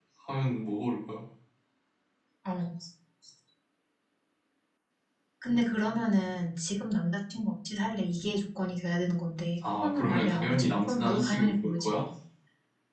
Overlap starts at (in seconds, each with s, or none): 9.6 s